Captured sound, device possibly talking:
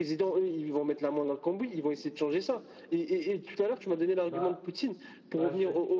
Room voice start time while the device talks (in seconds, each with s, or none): 4.3 s